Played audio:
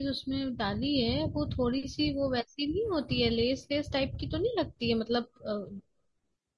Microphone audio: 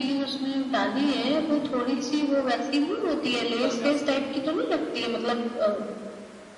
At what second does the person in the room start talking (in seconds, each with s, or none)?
3.6 s